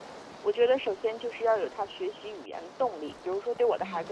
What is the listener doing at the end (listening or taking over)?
listening